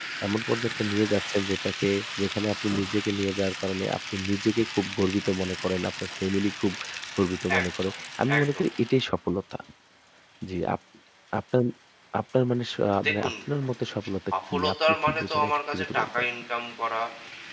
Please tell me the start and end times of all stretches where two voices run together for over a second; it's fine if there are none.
14.5-16.1

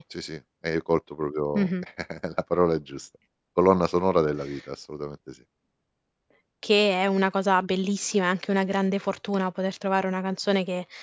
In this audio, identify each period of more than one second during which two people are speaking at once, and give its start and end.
none

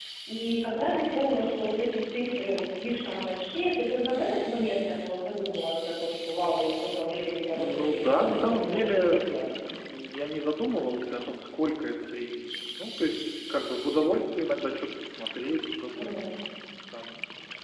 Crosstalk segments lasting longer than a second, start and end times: 7.5-9.5

